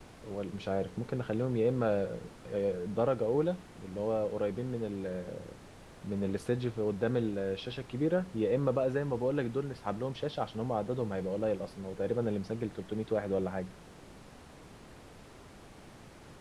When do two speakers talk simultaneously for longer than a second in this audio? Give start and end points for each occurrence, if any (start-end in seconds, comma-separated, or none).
none